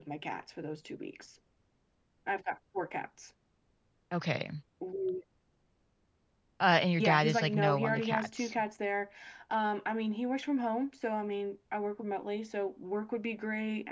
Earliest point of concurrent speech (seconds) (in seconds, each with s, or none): 7.0 s